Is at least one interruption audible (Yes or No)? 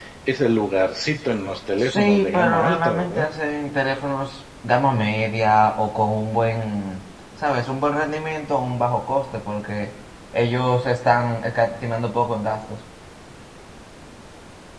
Yes